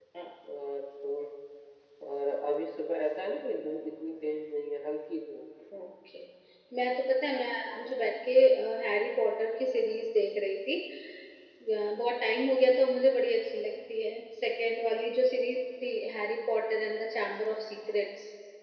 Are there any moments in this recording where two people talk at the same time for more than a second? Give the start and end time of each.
none

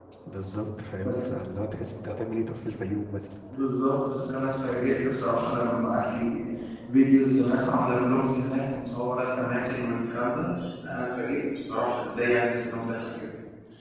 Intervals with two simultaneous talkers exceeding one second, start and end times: none

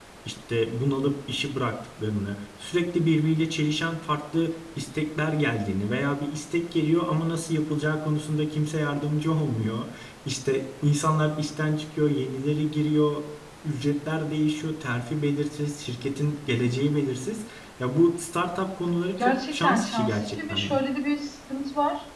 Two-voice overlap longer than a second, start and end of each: 19.2-20.8

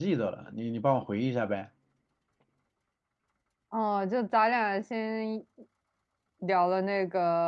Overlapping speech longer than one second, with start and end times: none

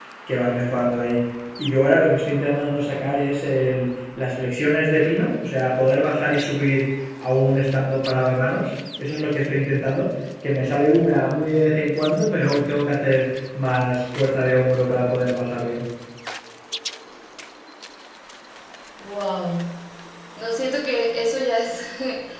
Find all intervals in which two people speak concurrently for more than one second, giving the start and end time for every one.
none

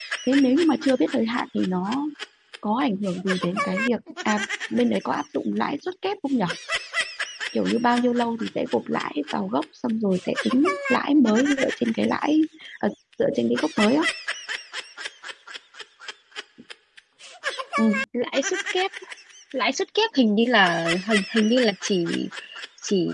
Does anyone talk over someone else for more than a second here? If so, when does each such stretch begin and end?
none

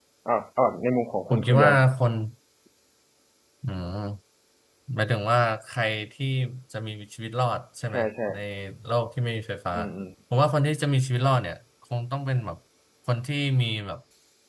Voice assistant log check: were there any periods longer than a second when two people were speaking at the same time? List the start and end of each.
none

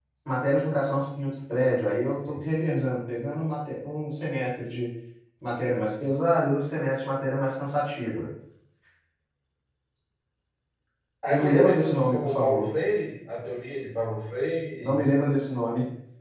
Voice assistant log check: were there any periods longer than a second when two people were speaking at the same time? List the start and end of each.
11.3-12.7

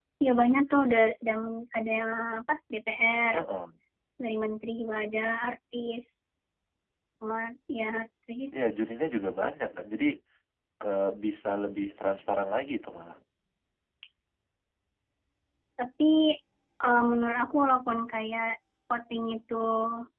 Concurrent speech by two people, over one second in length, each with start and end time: none

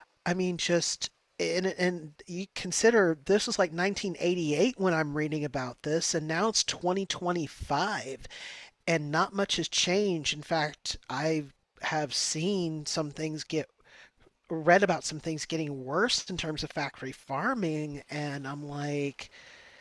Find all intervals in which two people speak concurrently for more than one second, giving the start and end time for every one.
none

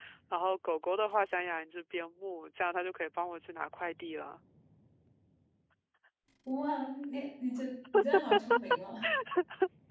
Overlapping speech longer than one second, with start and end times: none

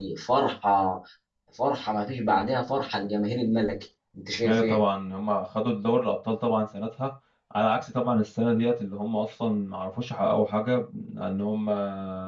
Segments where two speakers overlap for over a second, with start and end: none

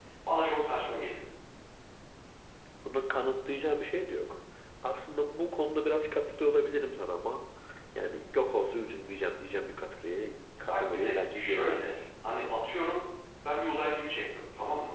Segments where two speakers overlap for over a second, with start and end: 10.7-12.0

